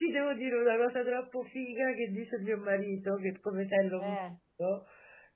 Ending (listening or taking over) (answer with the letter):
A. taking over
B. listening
B